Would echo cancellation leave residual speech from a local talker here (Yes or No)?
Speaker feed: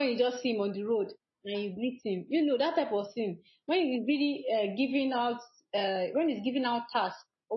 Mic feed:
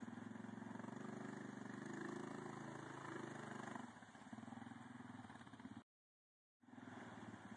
No